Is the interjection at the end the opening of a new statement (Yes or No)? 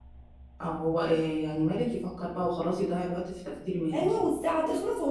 Yes